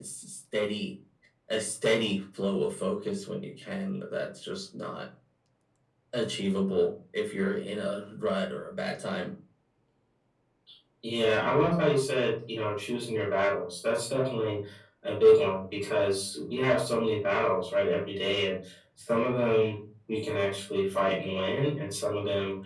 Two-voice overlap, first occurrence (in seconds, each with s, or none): none